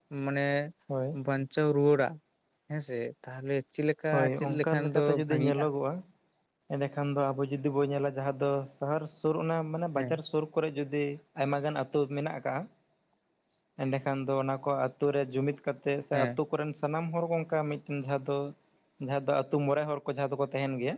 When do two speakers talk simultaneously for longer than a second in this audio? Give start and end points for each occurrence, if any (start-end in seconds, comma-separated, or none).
4.1-5.6